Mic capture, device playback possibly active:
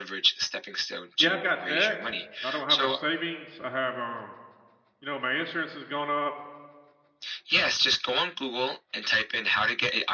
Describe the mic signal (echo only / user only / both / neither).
both